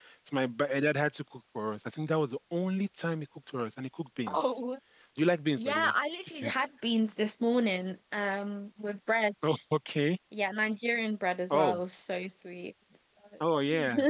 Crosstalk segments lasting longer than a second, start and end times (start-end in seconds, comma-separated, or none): none